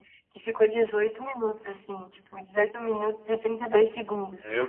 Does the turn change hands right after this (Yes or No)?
No